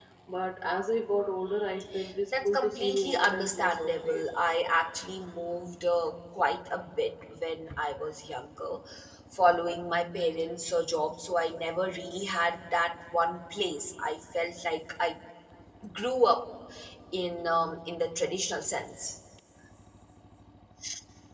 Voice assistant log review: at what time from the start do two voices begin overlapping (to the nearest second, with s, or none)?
2 s